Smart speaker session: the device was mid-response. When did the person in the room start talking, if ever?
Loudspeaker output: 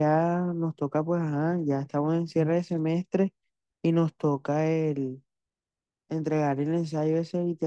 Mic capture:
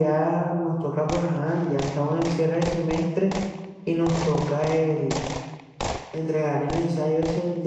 none

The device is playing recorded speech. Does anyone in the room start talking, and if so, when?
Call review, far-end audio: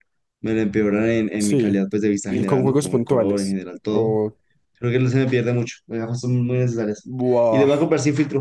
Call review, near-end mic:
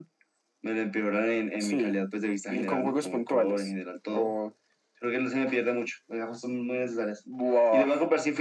none

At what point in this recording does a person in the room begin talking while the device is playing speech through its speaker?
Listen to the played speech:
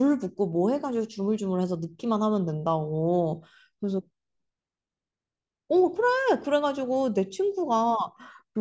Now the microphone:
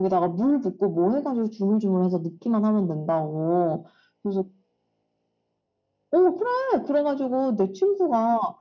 none

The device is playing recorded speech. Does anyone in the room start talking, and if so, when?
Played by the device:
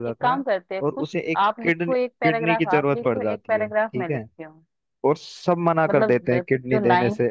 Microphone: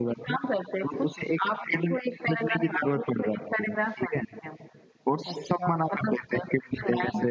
5.3 s

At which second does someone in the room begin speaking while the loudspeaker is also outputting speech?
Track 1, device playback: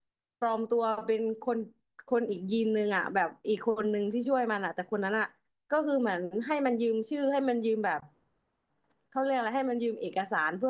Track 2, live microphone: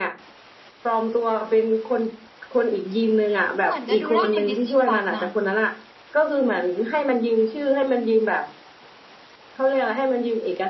3.6 s

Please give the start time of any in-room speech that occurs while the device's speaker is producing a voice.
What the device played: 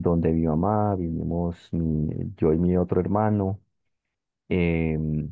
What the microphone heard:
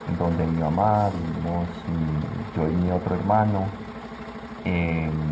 none

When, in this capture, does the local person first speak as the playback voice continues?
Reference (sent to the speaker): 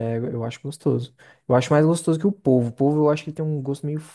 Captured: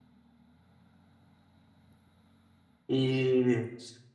2.9 s

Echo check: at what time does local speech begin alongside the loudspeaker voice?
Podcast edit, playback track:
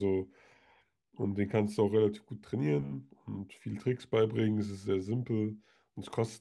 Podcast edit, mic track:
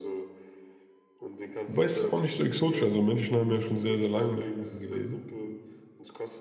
1.6 s

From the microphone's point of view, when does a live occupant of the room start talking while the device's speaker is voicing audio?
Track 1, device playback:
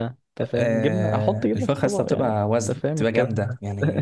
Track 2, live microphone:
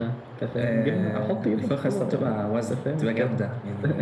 none

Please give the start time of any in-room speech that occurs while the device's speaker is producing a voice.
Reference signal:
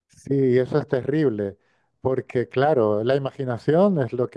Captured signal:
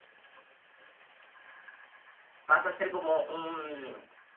2.4 s

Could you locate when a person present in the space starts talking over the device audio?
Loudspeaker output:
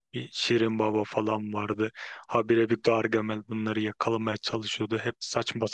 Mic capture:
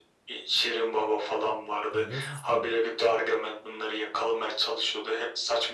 1.9 s

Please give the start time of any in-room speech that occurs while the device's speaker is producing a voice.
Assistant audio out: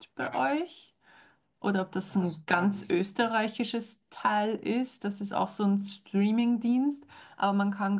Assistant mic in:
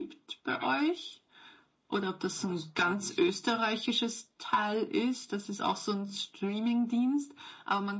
none

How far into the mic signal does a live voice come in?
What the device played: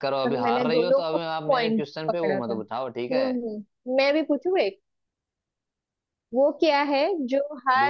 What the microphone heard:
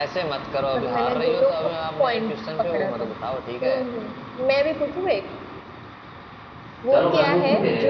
6.9 s

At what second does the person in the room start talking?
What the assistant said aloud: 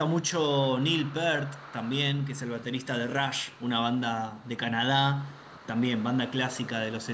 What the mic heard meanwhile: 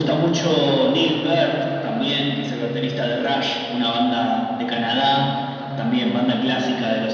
none

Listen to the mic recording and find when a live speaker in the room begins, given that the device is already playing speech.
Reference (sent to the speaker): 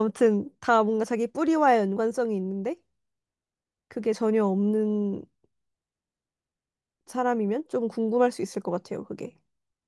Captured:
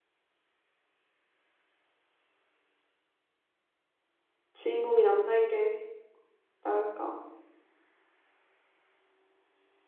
4.5 s

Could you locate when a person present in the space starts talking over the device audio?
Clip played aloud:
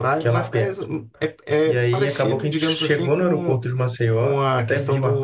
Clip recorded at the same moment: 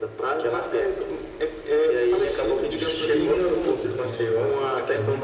2.6 s

